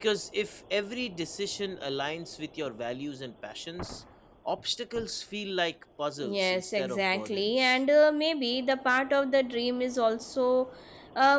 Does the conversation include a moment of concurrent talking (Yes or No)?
Yes